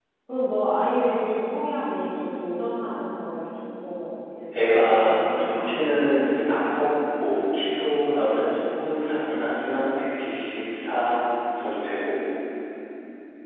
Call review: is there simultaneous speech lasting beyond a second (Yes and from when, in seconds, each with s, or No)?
Yes, from 4.5 s